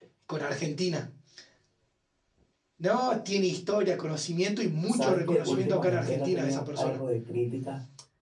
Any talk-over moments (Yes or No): Yes